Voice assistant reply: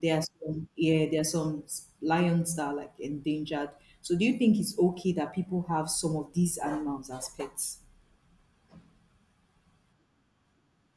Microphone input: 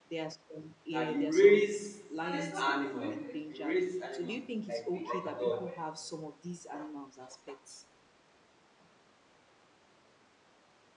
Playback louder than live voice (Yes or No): No